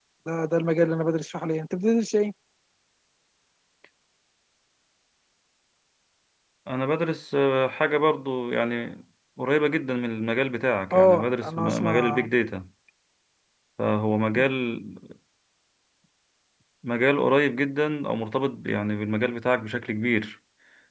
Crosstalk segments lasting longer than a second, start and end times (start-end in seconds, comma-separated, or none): 10.9-12.3